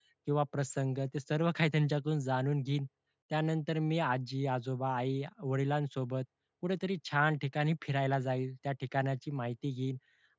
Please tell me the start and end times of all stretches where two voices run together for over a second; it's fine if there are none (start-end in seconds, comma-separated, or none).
none